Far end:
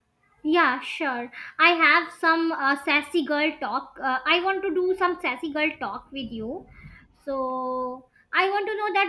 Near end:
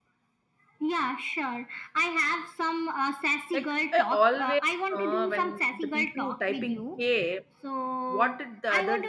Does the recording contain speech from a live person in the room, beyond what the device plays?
Yes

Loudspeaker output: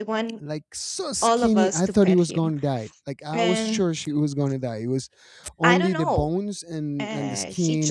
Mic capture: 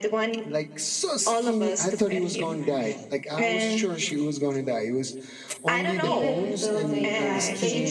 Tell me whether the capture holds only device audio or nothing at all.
No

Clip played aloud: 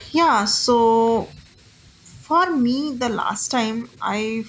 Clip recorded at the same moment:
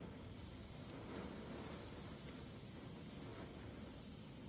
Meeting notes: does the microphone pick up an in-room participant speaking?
No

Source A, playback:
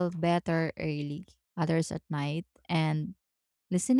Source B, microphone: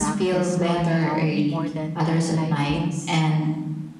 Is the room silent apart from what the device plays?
No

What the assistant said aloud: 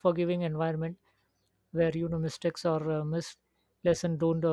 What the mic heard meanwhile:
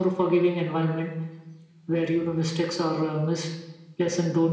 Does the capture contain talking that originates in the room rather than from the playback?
No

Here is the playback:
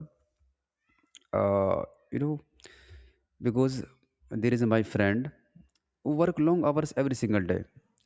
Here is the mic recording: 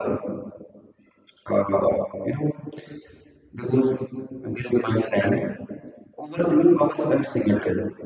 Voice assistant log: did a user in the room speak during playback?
No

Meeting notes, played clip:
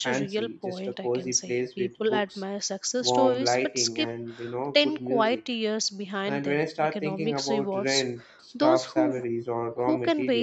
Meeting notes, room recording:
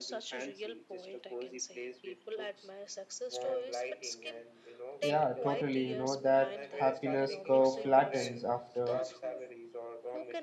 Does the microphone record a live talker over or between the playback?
Yes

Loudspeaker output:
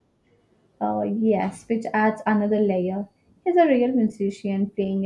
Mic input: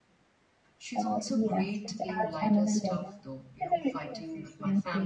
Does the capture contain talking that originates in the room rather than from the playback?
Yes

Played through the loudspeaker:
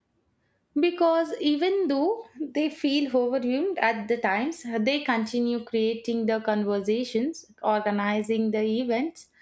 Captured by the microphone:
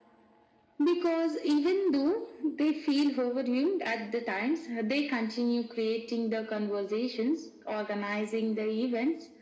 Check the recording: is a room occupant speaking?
No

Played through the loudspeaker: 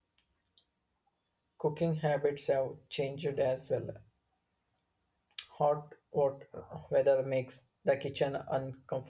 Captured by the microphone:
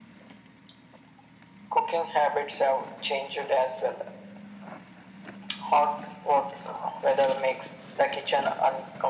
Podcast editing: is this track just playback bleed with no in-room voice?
Yes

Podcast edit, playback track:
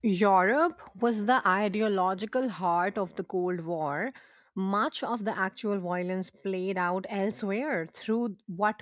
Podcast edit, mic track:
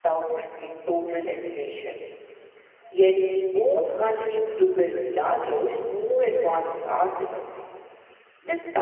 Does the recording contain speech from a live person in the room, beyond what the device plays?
Yes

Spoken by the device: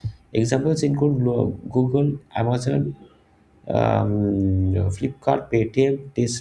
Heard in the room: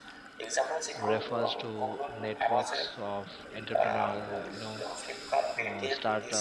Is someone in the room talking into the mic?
Yes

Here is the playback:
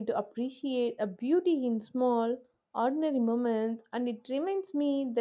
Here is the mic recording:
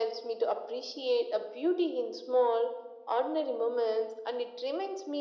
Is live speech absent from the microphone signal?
Yes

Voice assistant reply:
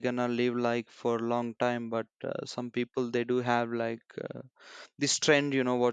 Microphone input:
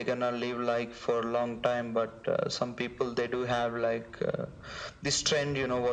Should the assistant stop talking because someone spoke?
No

